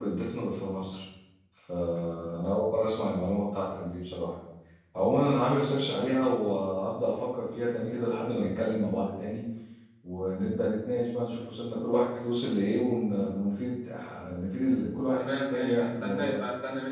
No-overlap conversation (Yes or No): No